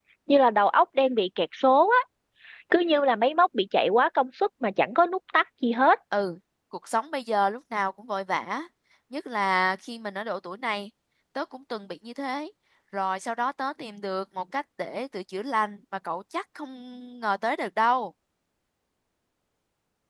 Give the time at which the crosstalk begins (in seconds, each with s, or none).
none